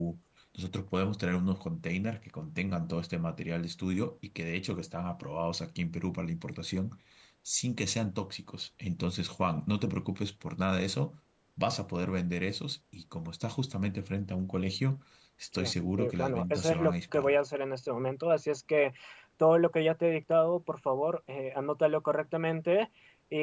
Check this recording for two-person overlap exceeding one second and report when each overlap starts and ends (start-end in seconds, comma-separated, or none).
15.6-17.4